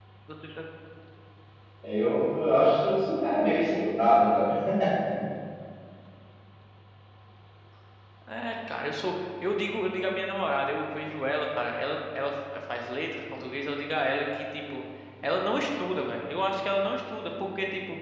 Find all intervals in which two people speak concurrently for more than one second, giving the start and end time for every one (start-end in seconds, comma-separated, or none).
none